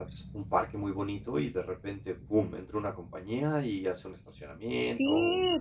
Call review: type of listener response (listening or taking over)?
taking over